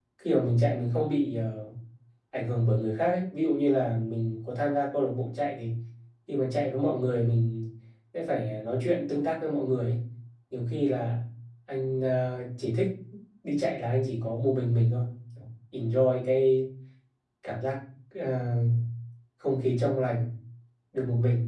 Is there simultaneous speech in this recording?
No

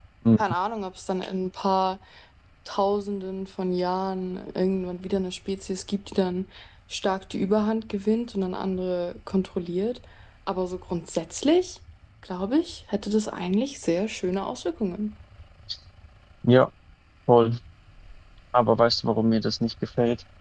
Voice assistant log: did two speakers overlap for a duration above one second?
No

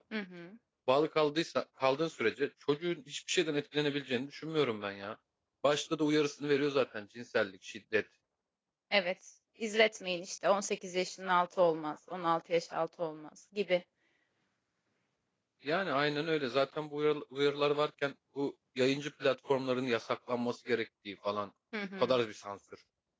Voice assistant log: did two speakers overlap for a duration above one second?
No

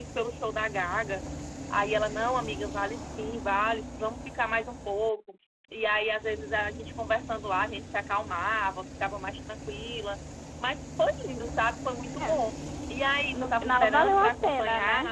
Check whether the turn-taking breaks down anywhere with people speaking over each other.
Yes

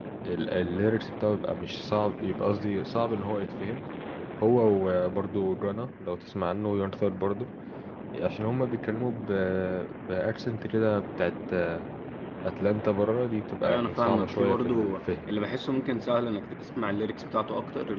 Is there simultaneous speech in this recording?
Yes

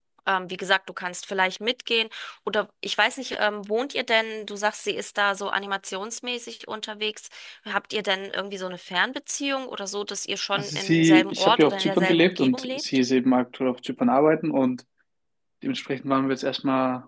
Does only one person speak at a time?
No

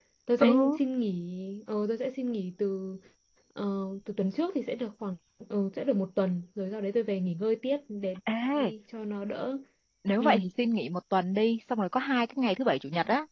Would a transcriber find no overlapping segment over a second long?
Yes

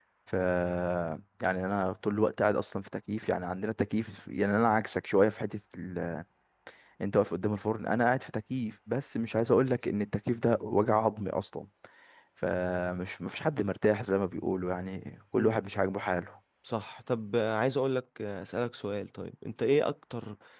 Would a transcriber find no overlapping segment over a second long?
Yes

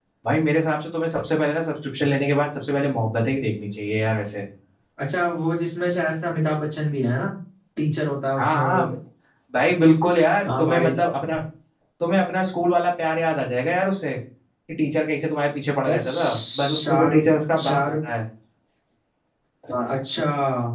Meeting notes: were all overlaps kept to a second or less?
No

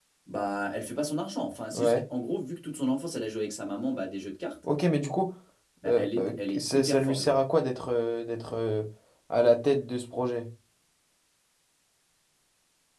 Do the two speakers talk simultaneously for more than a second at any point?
Yes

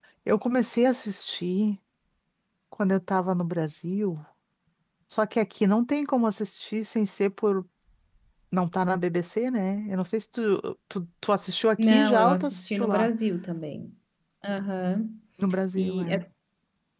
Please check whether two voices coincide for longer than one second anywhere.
Yes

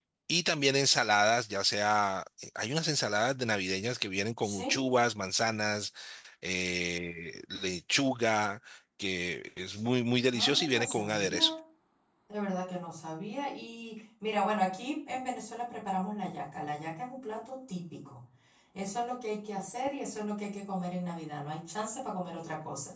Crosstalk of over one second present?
Yes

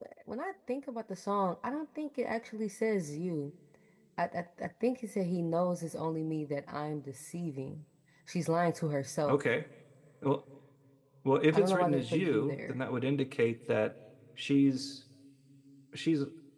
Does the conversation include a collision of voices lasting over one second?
Yes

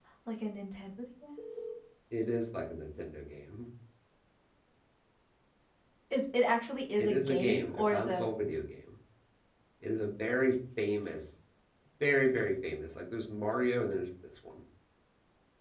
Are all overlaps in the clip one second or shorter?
No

